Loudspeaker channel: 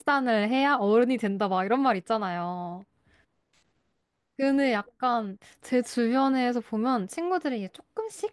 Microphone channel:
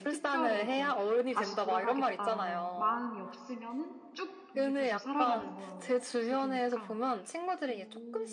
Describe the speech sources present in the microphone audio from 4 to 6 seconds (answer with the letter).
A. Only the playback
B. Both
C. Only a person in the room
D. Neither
B